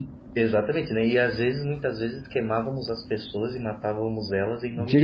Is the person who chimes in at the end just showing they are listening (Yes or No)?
No